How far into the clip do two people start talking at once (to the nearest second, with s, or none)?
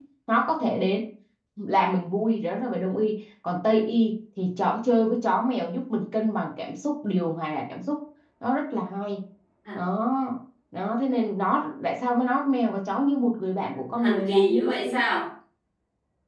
14 s